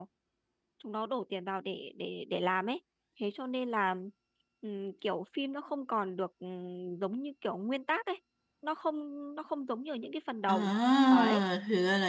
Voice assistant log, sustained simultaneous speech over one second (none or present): none